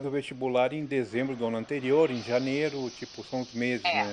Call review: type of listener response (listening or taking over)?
taking over